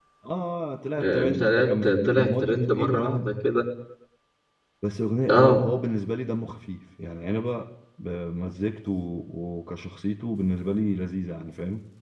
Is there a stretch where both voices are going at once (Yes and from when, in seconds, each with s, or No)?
Yes, from 1.0 s